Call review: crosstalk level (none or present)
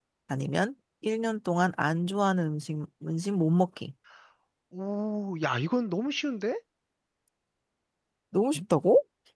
none